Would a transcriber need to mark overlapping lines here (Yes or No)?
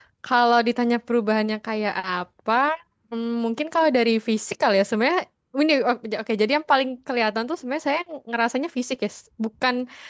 No